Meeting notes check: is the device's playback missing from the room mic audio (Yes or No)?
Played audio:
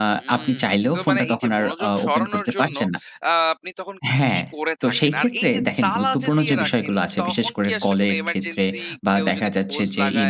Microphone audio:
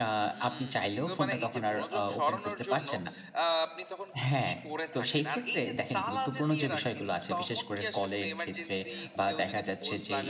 No